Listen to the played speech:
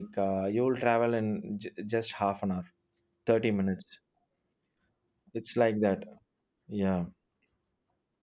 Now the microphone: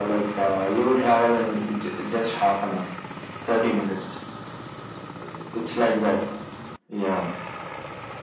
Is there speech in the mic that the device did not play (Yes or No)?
No